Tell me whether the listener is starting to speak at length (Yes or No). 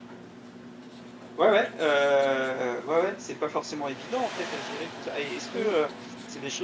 No